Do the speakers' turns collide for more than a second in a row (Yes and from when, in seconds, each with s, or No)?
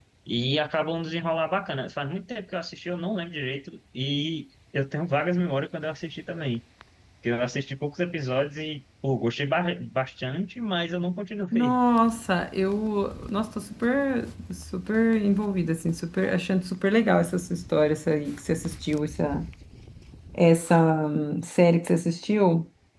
No